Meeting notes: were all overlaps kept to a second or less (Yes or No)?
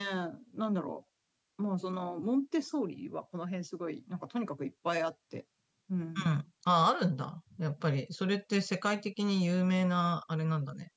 Yes